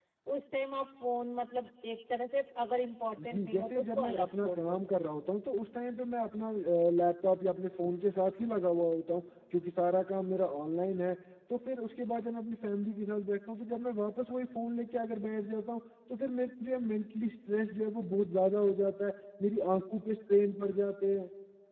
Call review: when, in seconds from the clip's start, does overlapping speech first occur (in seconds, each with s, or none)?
3.1 s